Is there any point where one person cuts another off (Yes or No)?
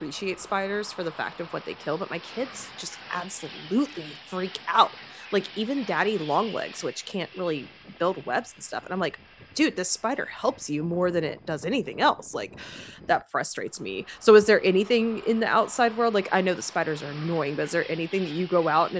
No